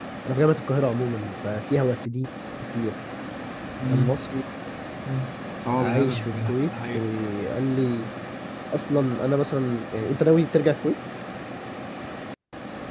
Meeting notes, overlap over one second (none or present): present